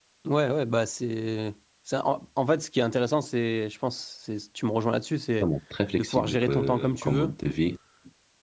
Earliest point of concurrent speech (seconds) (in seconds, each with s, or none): 6.0 s